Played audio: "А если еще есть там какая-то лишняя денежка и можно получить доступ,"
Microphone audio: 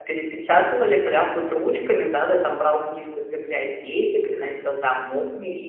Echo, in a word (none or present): none